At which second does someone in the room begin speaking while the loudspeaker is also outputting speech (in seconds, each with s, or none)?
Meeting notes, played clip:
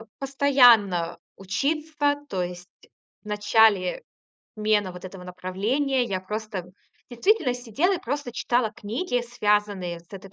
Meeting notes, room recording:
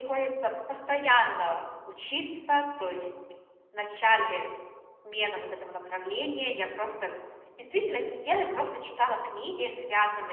none